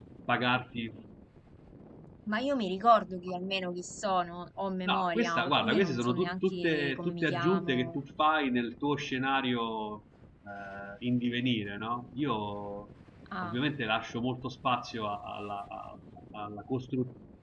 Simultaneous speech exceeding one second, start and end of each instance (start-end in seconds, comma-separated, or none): 4.8-8.0